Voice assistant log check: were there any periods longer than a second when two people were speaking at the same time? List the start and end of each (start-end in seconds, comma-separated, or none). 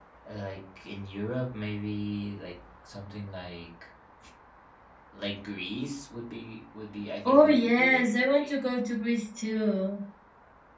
7.2-8.5